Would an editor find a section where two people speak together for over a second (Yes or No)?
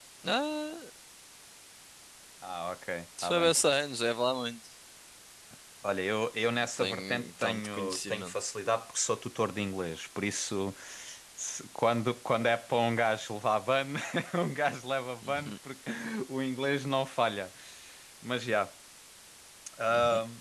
Yes